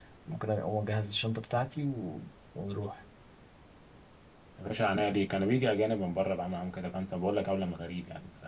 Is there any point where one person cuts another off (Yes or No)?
No